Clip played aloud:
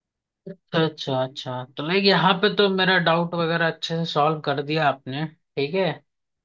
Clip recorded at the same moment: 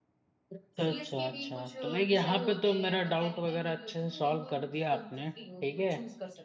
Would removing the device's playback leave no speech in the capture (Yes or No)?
No